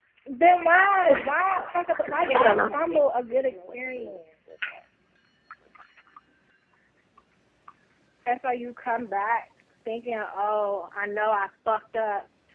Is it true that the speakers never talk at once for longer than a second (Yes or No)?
No